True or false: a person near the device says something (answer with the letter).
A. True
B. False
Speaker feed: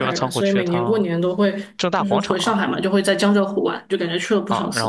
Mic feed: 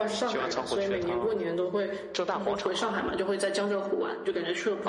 B